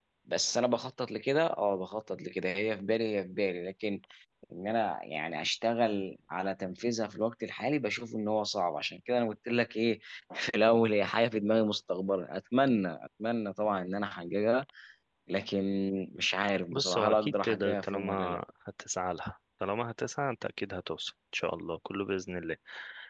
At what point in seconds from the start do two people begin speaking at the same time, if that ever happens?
17 s

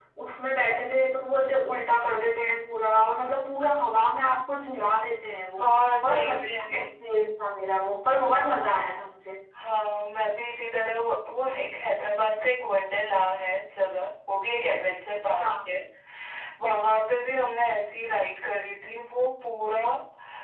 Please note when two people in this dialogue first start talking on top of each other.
6 s

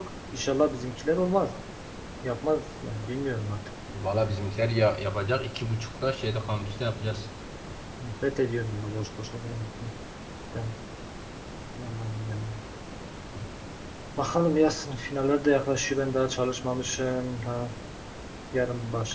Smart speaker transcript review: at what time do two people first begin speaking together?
none

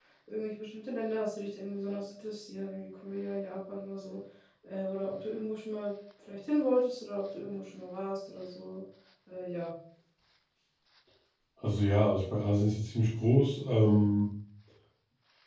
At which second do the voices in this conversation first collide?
none

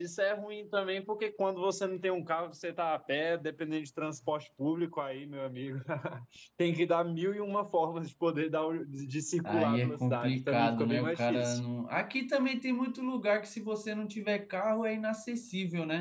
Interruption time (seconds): 9 s

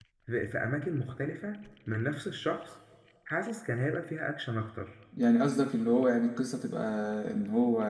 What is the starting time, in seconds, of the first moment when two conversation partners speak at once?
none

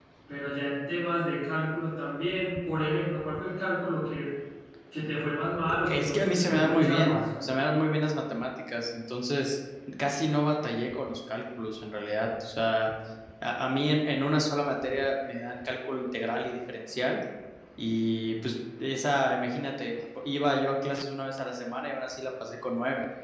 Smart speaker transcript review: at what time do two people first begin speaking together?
6 s

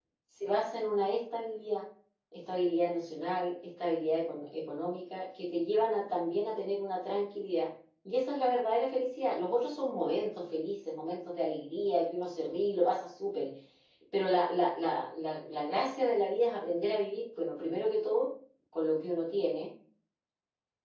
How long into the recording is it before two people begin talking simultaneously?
none

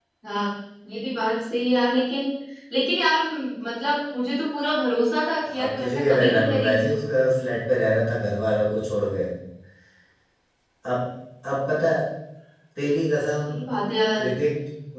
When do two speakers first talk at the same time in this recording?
5 s

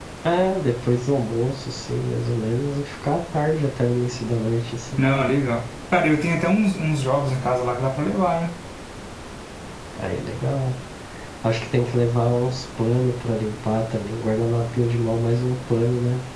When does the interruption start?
none

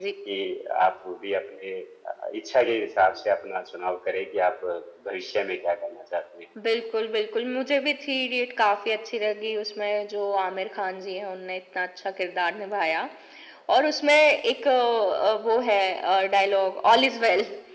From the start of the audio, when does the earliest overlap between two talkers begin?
none

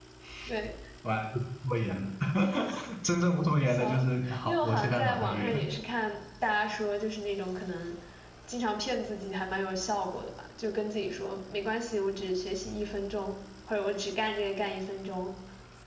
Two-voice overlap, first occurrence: 4 s

